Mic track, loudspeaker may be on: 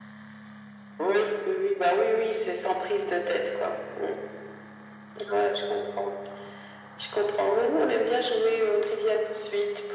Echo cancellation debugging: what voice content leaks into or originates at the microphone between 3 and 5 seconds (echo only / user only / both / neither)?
echo only